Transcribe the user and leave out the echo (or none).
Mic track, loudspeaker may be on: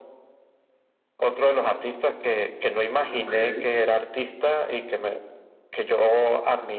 Okey,